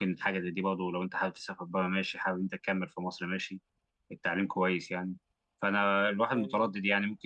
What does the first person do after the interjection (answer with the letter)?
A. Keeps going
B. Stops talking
A